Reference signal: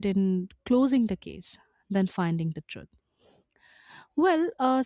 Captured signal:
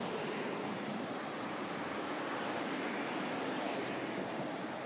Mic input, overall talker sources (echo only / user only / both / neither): neither